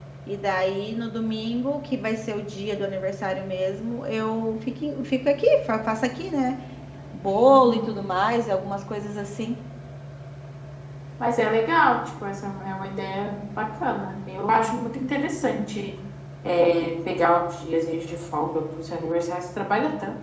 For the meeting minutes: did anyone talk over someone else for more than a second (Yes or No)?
No